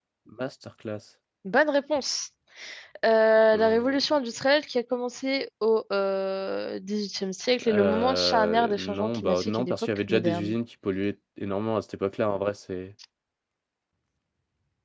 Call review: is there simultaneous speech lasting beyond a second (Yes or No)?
Yes